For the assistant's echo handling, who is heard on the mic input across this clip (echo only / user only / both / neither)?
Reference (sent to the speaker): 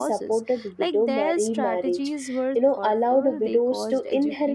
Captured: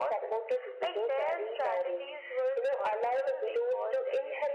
echo only